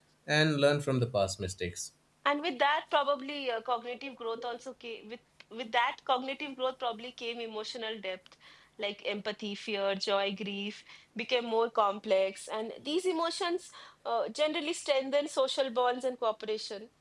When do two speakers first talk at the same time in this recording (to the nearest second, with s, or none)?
none